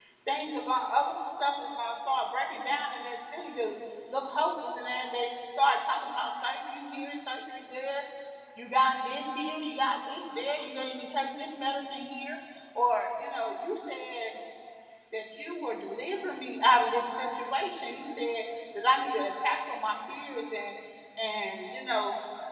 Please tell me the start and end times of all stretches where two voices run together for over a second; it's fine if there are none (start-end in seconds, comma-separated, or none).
none